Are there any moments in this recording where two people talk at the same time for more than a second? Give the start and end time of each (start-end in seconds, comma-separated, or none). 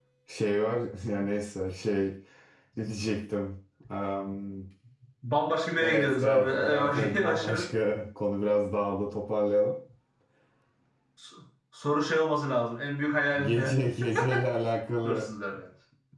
5.8-7.6